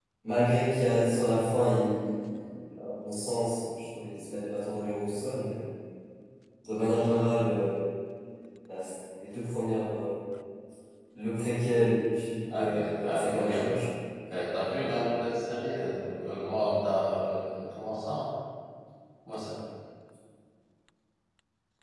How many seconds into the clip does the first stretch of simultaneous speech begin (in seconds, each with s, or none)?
12.5 s